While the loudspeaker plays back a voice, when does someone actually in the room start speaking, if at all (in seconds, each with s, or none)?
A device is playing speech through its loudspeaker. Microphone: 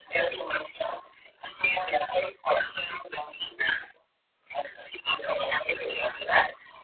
none